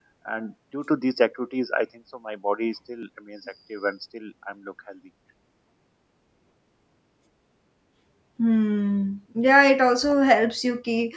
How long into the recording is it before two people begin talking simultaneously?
none

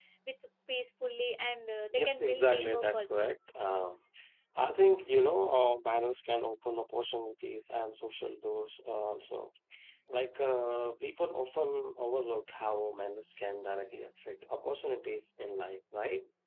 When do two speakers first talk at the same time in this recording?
1.9 s

